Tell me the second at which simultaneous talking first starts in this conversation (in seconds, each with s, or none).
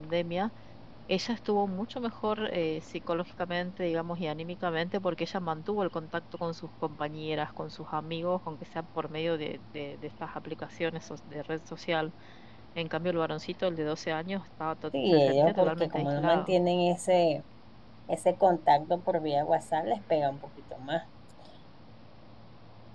14.9 s